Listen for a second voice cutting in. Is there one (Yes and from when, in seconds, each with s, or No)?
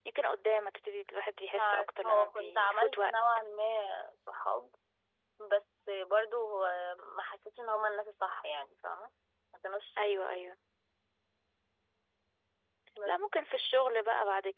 Yes, from 1.6 s